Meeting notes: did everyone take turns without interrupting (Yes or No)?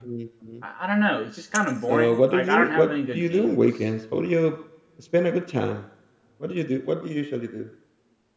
No